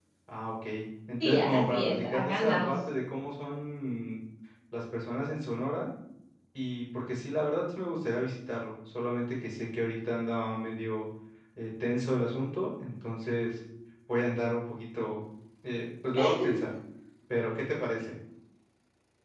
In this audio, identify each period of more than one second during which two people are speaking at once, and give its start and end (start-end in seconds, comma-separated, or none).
1.2-2.7